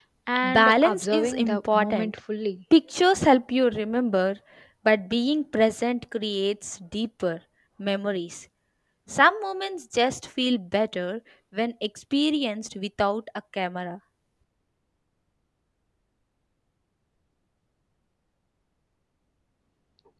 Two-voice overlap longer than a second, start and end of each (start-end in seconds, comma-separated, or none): 0.5-2.1